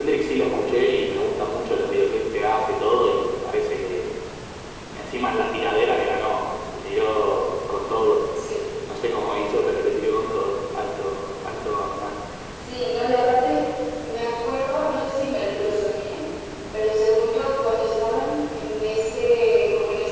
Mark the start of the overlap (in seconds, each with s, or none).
none